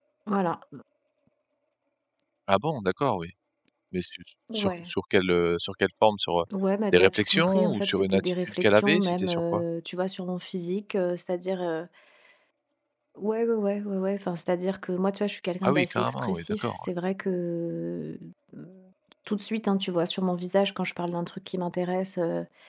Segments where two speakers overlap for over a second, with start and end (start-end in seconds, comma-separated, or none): 6.9-9.6, 15.6-16.9